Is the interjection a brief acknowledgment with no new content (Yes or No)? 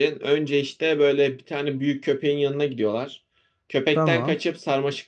Yes